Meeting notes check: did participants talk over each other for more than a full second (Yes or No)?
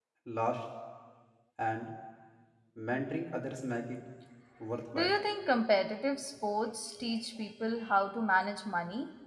No